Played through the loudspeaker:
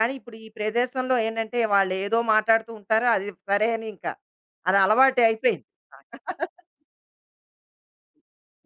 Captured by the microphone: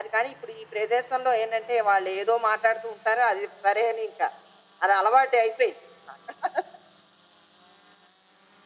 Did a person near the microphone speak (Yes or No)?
No